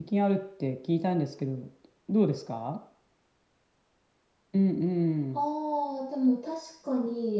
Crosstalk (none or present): none